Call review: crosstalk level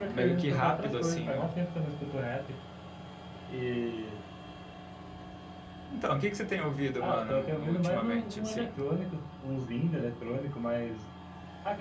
present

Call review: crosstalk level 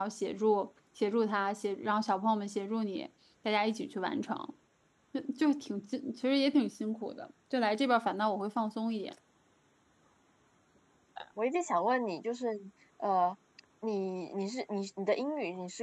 none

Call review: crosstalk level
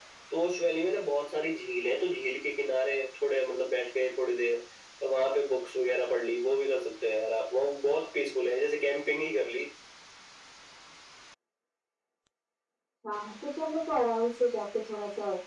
none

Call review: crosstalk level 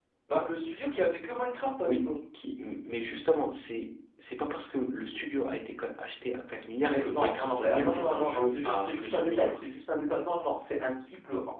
present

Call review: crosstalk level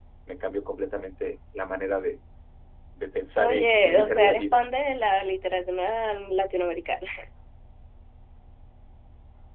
present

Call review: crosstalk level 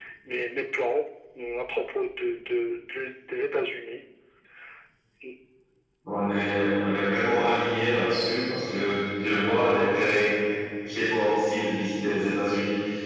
none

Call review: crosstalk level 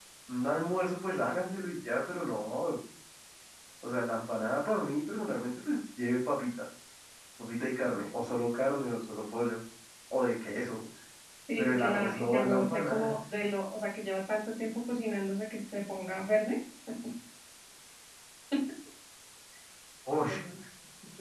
present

